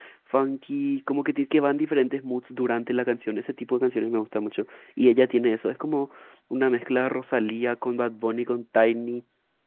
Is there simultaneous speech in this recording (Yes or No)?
No